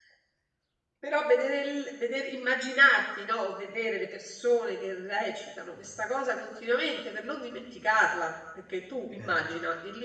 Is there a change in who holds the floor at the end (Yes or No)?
No